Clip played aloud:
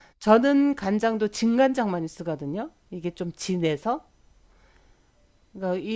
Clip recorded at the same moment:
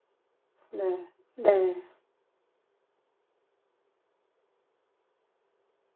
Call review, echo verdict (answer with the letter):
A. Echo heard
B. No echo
B